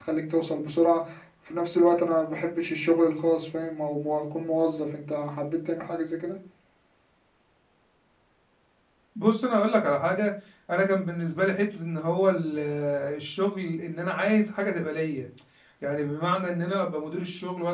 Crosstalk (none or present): none